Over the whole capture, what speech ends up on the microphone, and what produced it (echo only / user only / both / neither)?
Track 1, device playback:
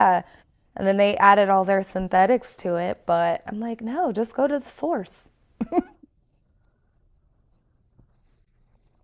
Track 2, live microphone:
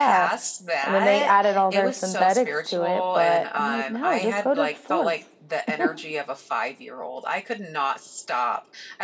both